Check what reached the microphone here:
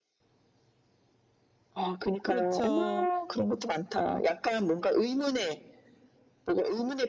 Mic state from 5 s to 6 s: echo only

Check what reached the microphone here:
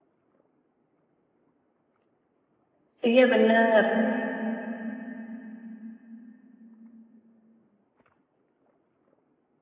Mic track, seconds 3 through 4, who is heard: user only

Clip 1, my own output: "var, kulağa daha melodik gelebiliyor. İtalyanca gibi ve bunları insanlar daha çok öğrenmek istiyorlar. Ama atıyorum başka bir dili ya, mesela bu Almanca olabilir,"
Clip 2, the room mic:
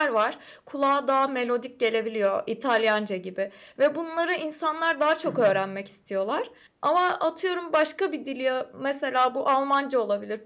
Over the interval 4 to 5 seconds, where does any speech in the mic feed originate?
echo only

